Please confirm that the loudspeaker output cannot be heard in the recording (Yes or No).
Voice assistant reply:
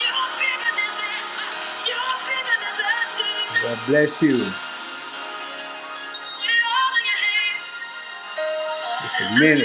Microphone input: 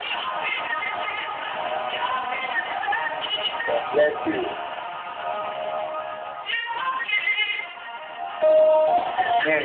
No